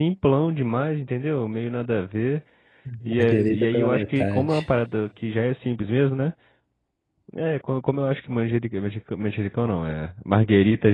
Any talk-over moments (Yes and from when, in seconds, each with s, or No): Yes, from 3.2 s